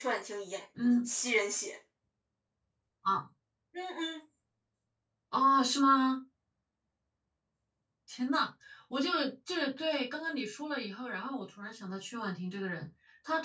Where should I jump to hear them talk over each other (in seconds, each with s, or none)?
none